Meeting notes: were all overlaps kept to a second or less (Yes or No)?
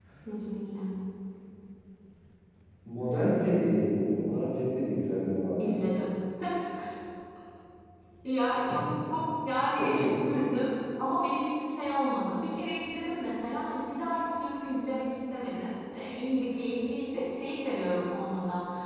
Yes